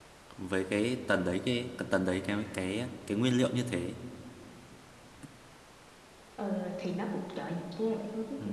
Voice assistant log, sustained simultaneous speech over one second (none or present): none